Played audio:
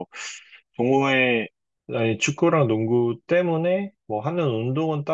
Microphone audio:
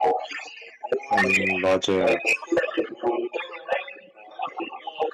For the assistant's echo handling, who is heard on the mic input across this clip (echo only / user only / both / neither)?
both